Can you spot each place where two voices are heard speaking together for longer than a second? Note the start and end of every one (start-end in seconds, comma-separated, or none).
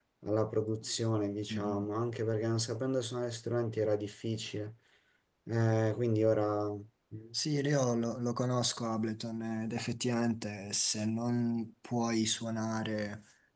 none